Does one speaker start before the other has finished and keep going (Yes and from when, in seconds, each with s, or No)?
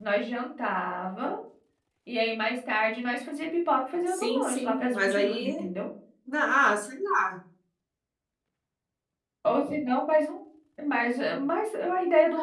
Yes, from 4.1 s